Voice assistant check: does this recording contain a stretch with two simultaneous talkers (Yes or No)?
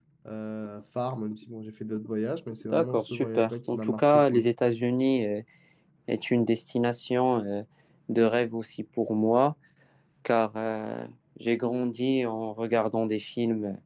Yes